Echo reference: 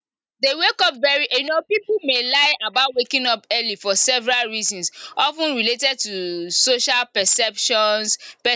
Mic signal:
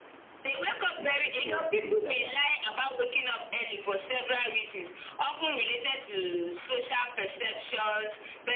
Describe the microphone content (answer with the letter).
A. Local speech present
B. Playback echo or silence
A